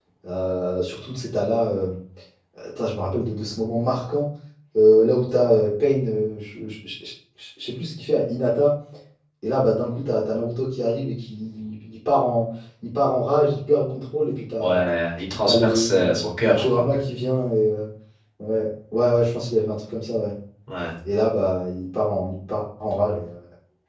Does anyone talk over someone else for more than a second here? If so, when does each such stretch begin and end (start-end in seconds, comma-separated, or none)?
15.4-16.8